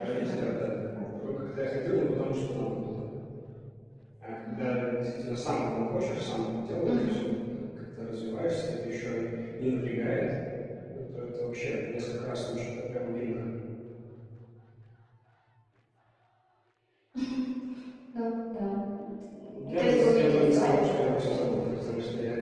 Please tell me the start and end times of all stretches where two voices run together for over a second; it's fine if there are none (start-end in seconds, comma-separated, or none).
19.5-21.5